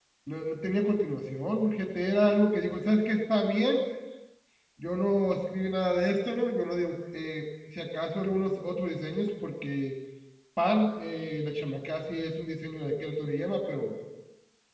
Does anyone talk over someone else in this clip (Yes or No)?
No